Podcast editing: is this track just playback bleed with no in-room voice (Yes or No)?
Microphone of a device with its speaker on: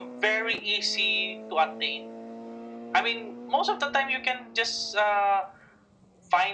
Yes